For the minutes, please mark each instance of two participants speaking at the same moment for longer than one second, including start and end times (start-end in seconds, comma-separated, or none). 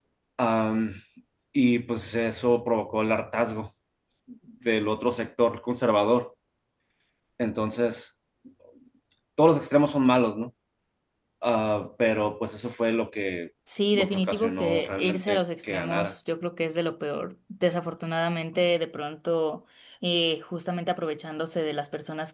13.9-16.1